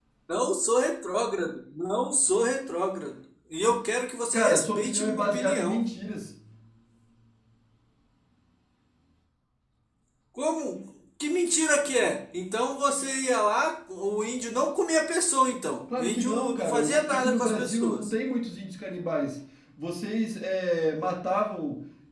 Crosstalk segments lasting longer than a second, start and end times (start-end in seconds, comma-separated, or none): 4.3-5.8, 16.0-18.1